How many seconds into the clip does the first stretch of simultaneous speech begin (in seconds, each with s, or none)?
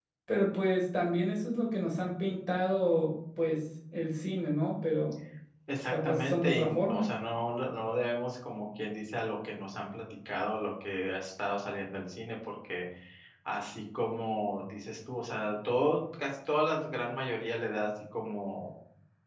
5.9 s